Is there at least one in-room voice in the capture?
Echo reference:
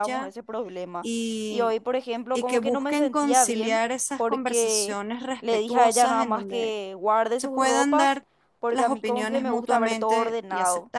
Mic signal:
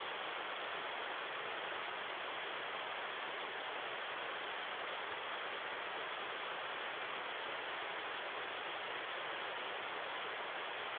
No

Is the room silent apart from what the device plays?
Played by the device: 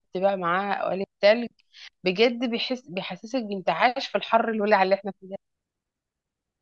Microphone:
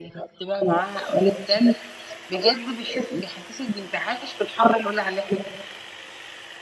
Yes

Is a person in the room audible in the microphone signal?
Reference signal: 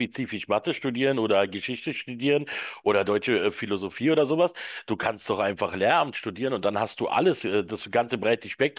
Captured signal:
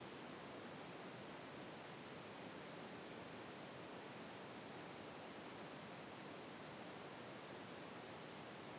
No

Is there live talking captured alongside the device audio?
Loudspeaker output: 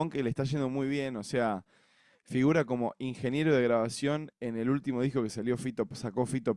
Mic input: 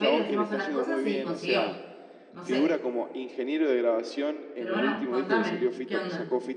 Yes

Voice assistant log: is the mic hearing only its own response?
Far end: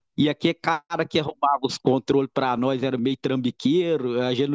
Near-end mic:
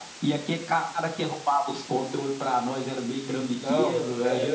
No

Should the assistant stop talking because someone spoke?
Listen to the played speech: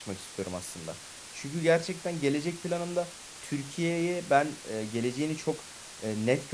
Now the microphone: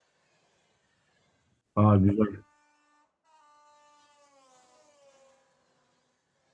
Yes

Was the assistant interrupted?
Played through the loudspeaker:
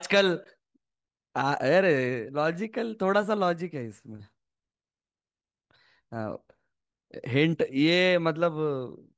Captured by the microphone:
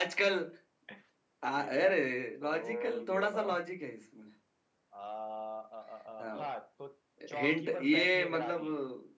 Yes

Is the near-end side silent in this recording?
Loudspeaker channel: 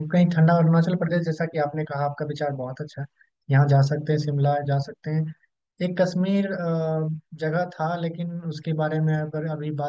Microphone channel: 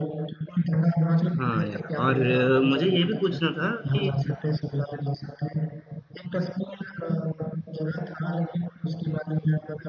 No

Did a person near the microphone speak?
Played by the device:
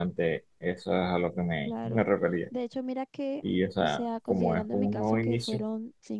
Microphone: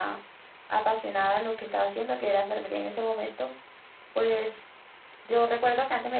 Yes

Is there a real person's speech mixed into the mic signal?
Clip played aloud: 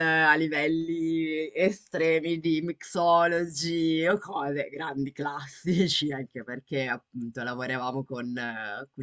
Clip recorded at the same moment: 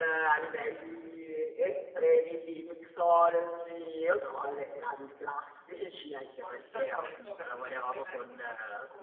Yes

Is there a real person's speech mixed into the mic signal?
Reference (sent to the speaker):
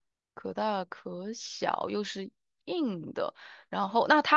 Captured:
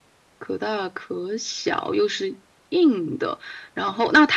No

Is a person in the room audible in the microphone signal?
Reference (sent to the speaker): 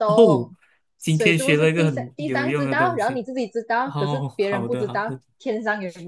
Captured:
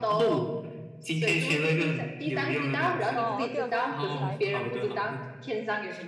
Yes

